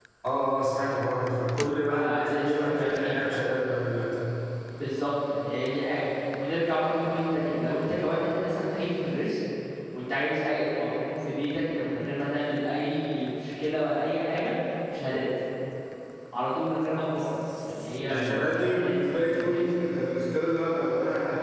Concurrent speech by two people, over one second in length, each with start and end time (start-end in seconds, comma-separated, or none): 1.9-3.2, 18.1-19.7